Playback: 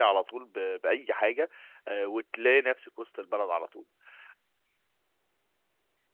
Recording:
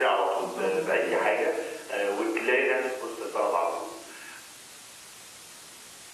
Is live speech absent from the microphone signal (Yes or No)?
No